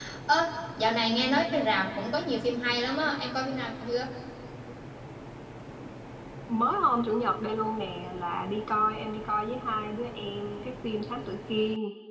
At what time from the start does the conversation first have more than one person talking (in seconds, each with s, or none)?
none